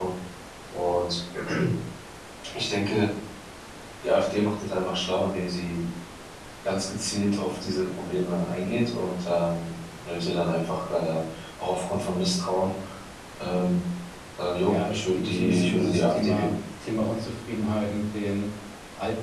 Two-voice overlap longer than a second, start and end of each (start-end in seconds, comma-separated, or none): 14.7-16.5